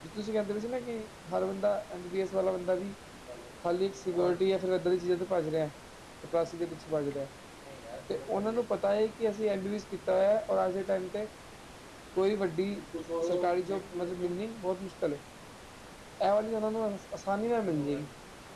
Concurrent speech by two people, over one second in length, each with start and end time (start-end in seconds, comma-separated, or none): none